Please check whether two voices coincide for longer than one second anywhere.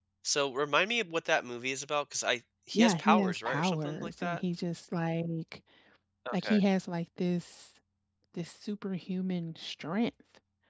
Yes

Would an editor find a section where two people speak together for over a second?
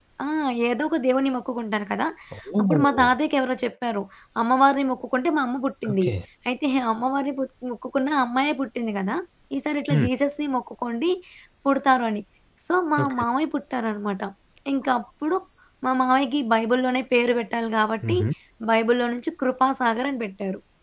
No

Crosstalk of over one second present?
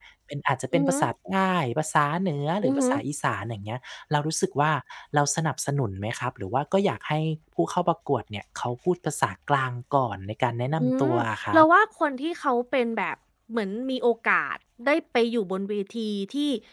No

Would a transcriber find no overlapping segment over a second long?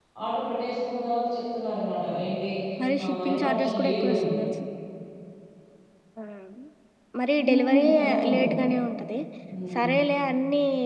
No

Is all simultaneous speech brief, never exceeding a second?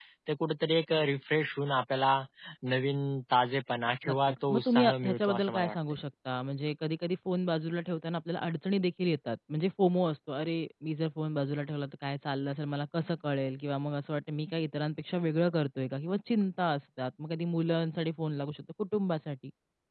No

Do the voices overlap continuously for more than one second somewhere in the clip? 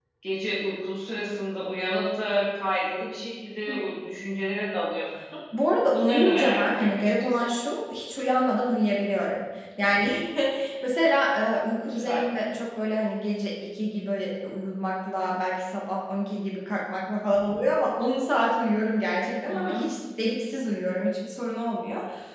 Yes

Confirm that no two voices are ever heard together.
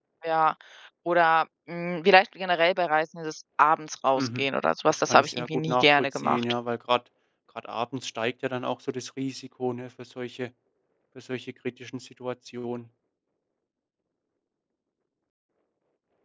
No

